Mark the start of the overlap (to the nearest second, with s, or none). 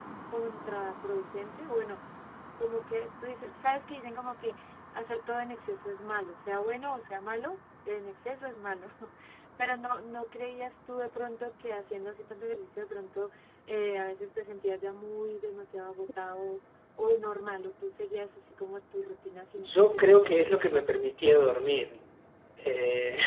20 s